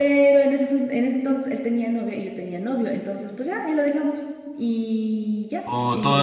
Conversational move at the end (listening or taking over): taking over